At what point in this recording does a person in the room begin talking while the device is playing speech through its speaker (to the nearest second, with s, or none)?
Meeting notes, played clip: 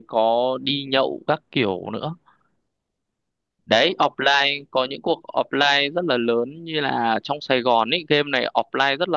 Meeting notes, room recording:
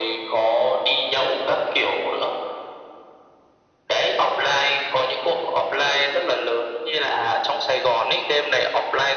none